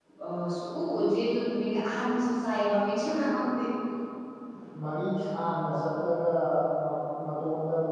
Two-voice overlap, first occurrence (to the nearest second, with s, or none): none